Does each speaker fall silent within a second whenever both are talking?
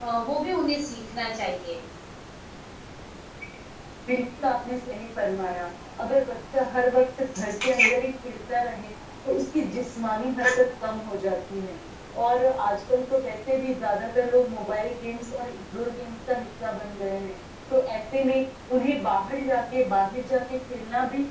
Yes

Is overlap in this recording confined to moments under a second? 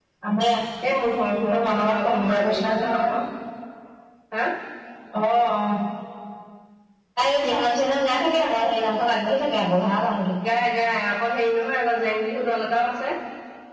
No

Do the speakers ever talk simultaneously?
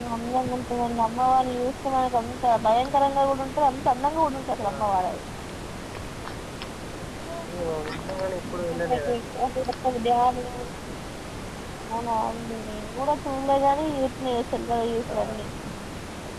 Yes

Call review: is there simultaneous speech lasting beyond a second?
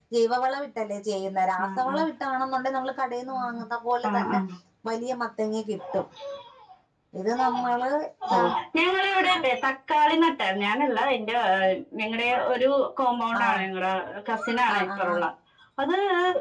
No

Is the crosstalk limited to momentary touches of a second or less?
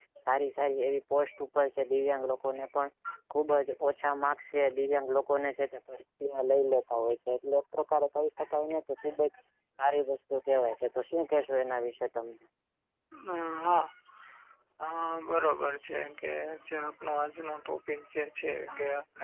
Yes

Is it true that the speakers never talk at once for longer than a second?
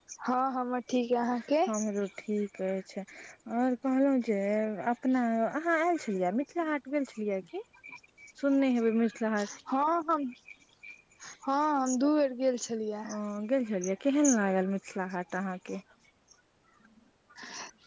Yes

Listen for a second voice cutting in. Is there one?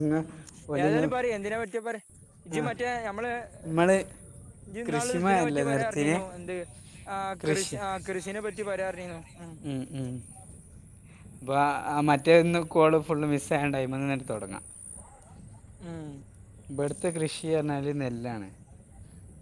Yes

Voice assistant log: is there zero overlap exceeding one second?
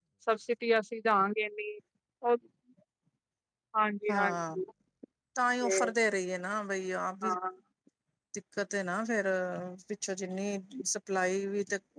Yes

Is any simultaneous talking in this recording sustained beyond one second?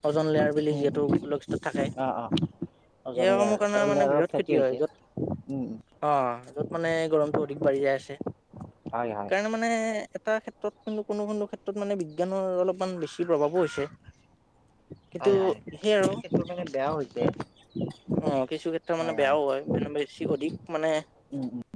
Yes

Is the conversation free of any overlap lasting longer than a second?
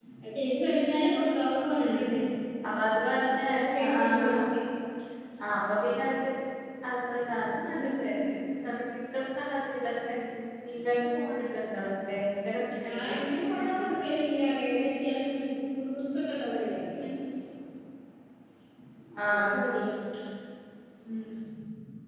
No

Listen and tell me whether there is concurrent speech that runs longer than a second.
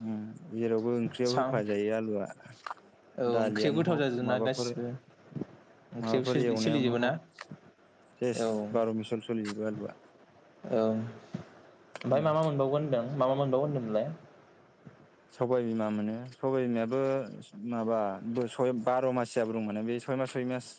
Yes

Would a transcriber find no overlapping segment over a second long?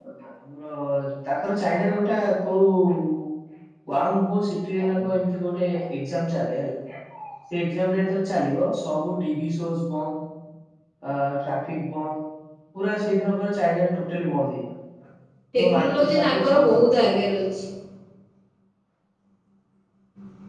No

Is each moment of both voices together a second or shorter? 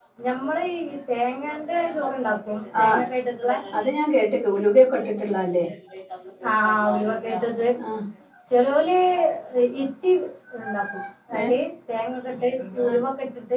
Yes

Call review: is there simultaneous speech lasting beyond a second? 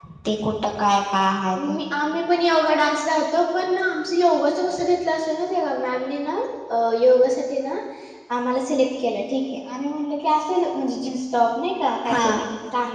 No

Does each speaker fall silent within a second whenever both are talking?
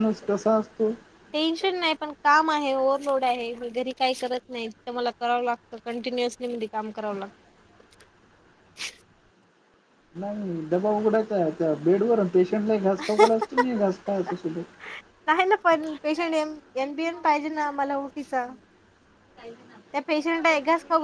Yes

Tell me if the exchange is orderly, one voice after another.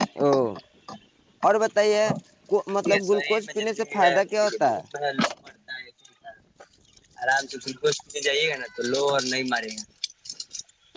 No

